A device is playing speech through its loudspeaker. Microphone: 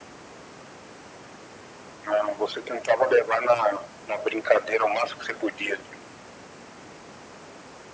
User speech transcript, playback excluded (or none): none